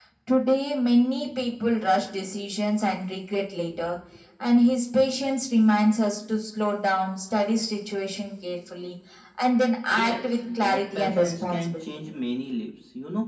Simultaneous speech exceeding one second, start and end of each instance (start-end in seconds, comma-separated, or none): 9.9-11.9